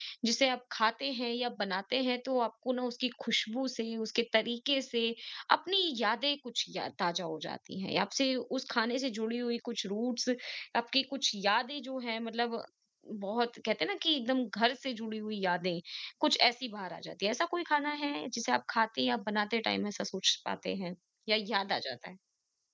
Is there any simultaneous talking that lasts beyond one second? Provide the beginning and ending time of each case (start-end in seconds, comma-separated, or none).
none